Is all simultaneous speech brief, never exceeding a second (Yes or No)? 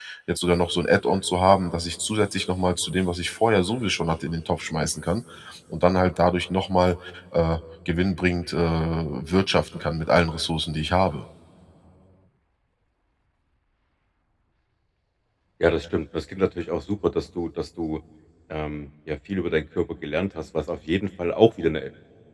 Yes